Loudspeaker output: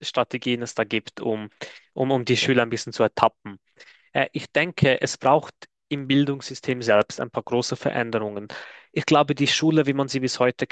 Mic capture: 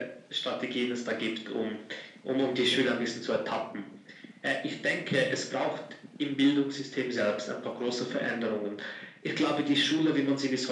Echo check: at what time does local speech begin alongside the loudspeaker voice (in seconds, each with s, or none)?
none